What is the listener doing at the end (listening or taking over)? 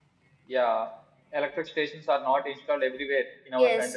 listening